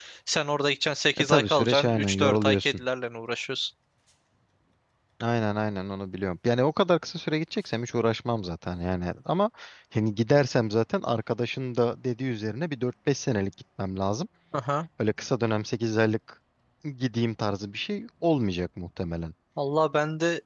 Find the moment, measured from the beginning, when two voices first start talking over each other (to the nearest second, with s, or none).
1 s